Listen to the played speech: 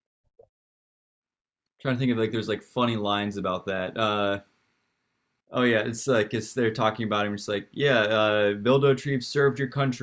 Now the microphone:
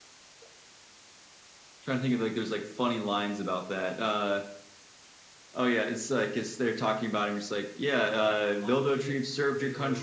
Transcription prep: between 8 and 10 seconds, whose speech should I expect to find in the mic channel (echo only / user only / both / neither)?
both